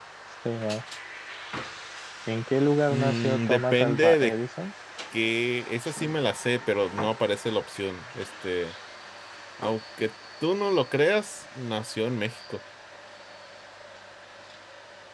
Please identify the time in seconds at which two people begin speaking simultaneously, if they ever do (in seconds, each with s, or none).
2.9 s